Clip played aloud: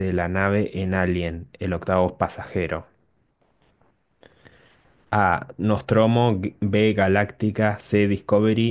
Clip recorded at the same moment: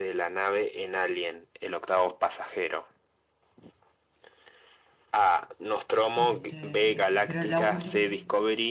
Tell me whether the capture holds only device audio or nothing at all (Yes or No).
No